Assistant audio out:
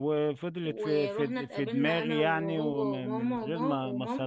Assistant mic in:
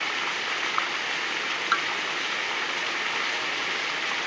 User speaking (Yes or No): No